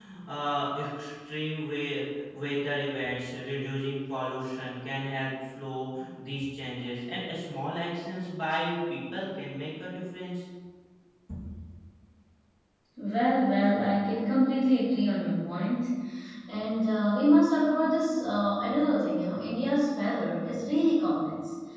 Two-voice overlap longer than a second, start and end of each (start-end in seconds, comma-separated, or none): none